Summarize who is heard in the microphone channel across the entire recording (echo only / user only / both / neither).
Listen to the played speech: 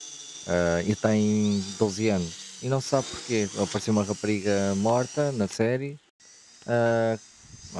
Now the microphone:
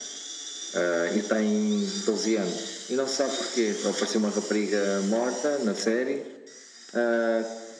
echo only